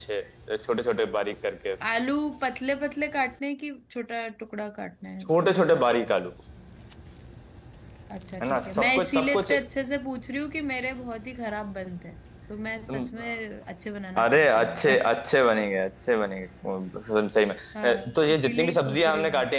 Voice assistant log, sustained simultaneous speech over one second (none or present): present